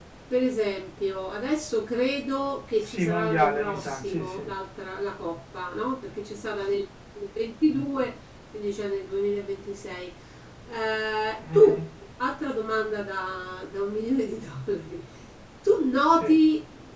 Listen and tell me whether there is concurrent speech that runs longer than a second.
Yes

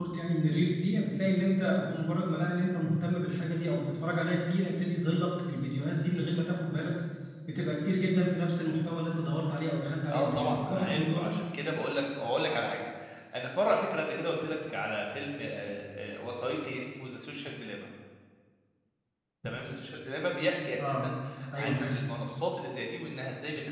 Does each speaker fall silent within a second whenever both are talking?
No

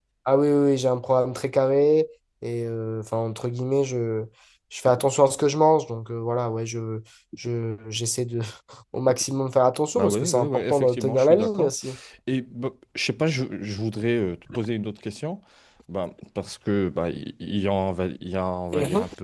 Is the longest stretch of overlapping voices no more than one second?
No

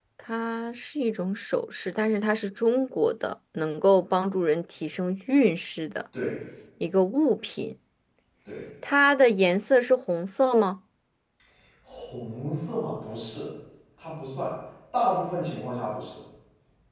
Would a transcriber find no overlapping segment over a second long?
Yes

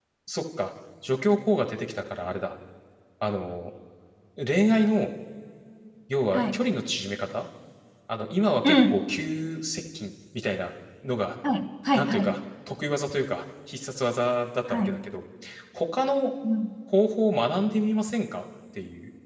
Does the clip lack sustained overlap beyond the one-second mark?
Yes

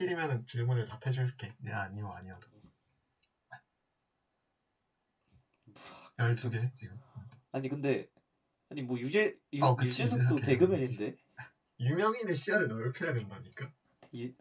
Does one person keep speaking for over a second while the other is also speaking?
Yes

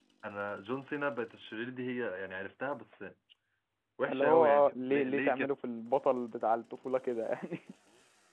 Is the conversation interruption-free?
No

